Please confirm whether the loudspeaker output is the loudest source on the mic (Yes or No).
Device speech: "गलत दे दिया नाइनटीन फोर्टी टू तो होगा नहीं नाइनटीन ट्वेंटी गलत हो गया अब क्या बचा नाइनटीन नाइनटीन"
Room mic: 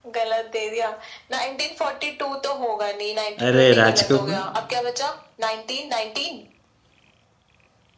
No